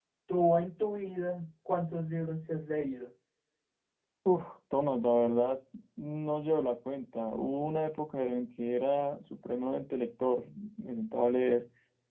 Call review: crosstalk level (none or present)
none